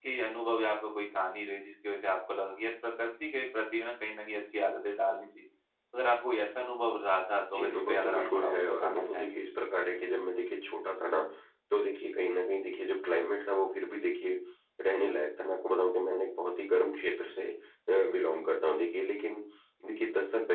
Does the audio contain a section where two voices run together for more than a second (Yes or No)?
Yes